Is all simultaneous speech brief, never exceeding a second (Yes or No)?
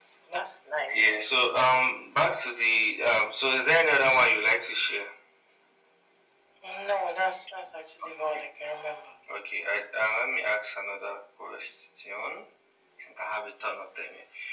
Yes